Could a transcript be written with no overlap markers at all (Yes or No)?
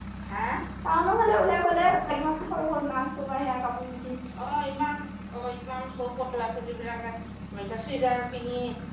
Yes